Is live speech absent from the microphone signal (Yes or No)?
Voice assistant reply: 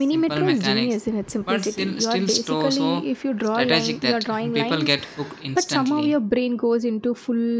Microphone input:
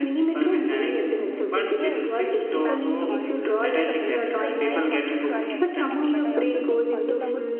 No